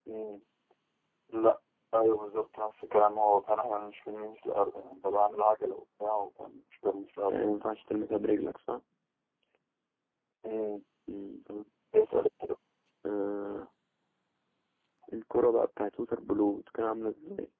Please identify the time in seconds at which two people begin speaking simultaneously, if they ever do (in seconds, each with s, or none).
none